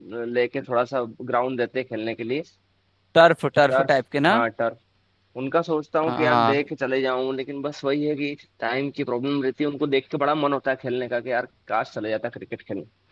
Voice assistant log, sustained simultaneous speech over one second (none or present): none